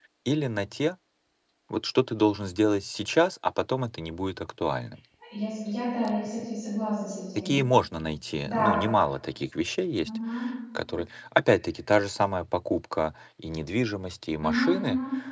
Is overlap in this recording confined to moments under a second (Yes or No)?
Yes